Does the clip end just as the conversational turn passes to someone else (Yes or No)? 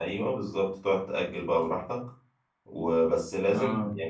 No